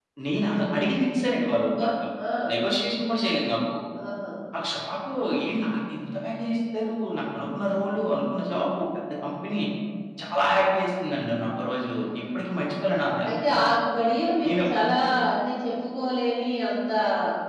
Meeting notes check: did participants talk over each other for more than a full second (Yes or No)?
No